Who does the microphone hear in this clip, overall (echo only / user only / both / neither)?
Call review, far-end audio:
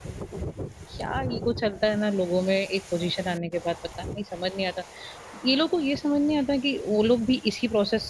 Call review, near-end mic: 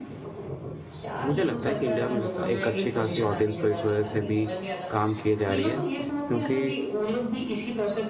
both